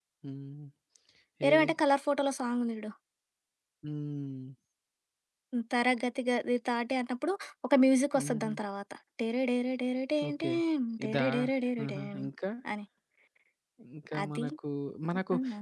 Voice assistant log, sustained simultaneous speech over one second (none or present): none